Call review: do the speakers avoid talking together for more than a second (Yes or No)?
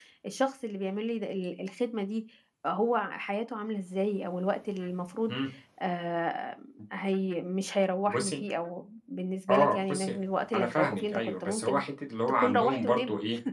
No